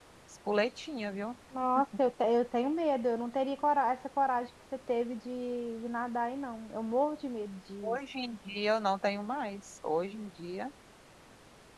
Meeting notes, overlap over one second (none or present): none